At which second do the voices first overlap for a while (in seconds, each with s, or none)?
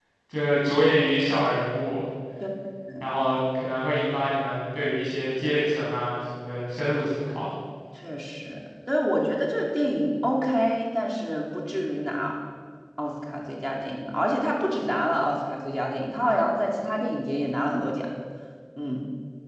none